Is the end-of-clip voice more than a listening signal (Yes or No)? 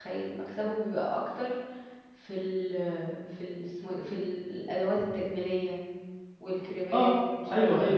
Yes